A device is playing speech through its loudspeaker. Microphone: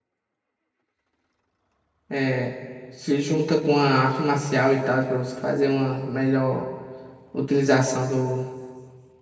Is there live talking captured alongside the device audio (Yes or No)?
Yes